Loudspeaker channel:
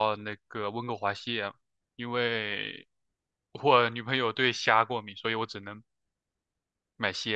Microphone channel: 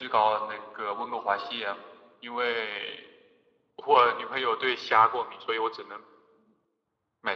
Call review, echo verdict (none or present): present